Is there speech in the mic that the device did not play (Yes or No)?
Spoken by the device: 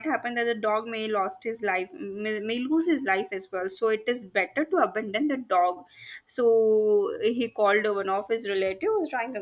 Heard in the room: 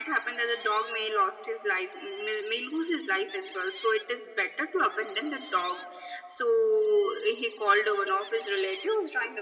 No